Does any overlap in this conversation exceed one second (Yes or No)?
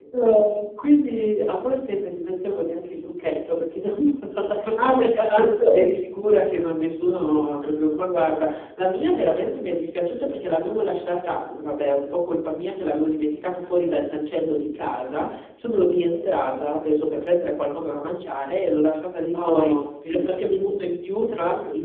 Yes